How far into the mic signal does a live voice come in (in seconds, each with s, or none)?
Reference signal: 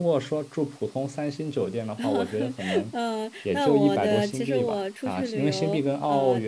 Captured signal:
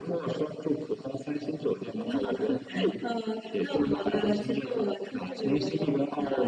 none